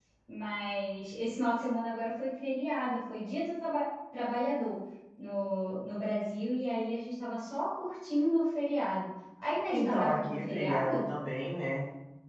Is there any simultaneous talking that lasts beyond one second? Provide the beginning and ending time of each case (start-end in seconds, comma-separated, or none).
9.7-11.1